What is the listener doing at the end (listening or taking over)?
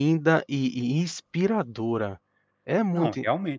taking over